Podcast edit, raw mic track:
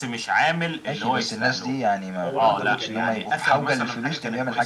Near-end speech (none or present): present